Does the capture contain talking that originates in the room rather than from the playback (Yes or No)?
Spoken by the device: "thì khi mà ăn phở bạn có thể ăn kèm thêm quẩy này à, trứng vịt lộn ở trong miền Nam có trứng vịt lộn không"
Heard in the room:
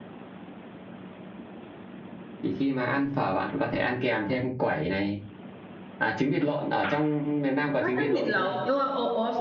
Yes